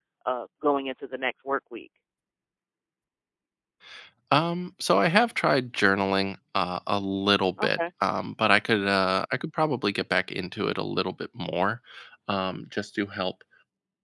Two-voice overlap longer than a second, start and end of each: none

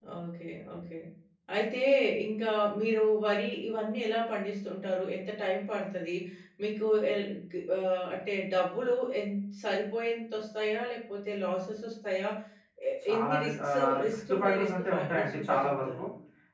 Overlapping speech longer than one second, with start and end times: 13.1-16.0

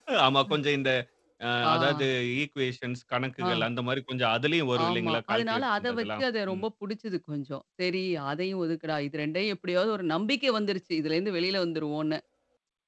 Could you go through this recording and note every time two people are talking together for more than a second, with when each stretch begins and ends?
4.9-6.6

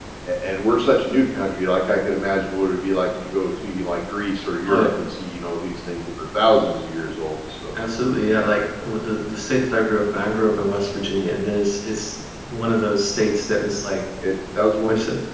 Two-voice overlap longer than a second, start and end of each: none

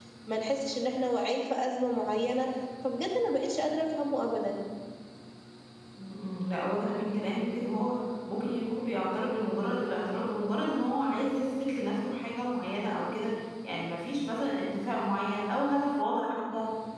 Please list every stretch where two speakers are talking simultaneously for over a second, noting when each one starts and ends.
none

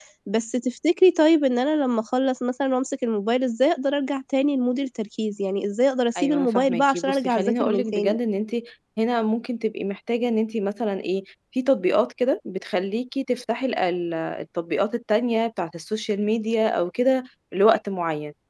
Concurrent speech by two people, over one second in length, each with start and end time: 6.2-8.2

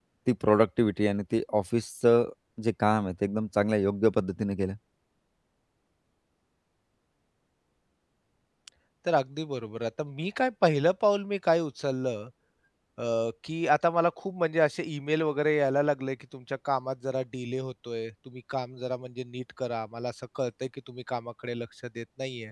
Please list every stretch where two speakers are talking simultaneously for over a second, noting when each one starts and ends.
none

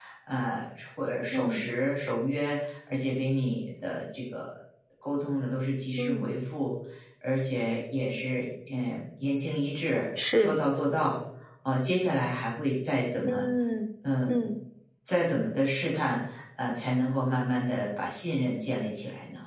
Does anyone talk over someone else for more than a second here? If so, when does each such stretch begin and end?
none

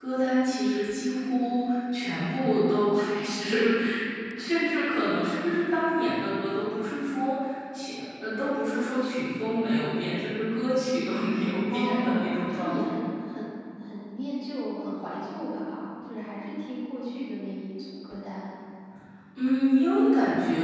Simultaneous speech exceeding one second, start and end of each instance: 11.7-12.9

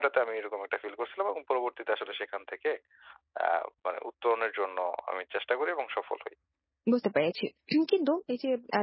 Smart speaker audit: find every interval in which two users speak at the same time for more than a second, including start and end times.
none

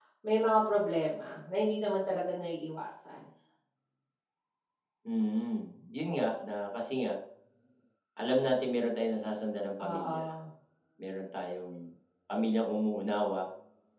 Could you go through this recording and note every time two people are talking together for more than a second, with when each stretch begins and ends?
none

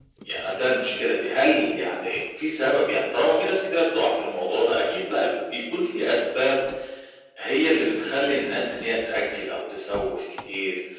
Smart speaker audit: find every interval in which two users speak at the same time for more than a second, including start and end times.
none

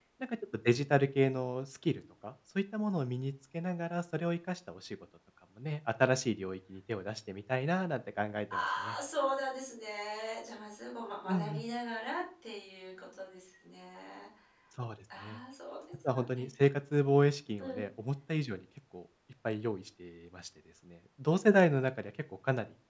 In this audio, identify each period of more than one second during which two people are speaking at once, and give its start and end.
none

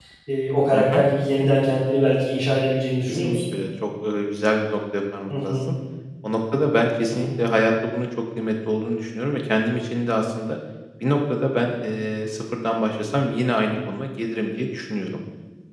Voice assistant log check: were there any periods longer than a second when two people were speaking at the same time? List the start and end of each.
none

